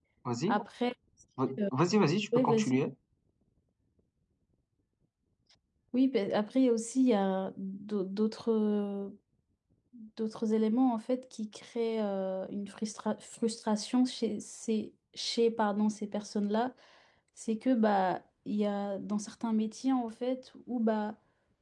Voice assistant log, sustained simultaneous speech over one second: none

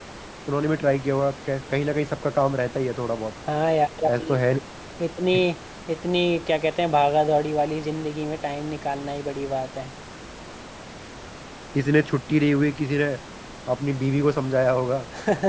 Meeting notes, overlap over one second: none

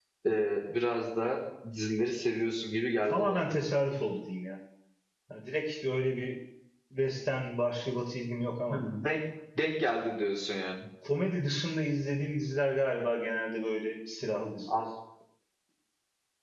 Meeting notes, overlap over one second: none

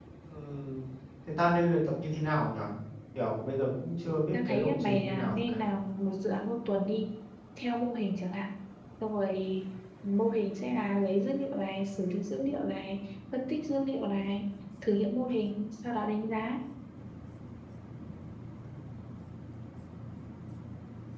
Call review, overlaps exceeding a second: present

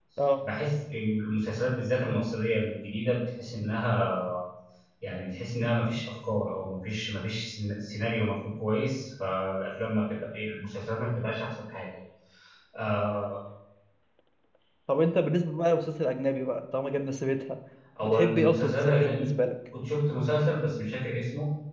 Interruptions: present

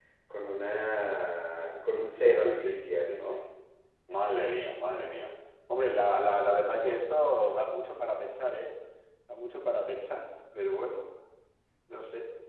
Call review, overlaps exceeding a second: present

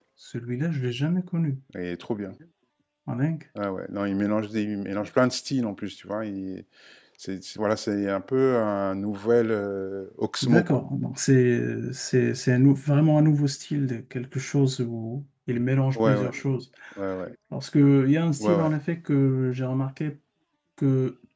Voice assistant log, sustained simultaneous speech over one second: none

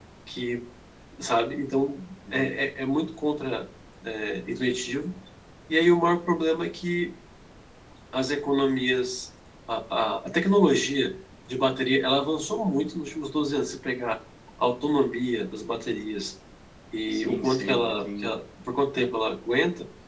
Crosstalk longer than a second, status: present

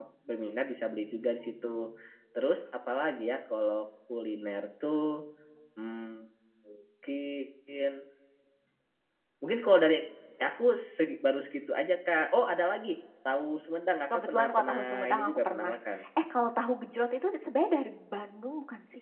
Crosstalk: present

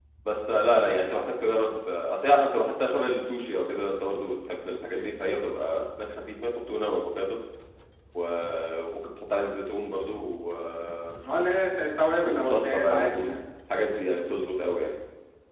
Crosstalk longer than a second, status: present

